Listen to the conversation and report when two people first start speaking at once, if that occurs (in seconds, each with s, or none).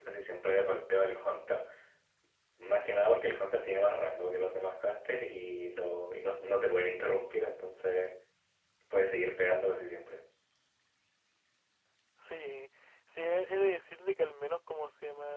none